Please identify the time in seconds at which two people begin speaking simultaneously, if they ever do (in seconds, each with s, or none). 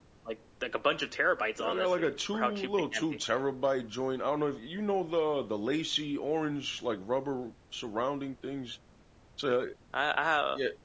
1.6 s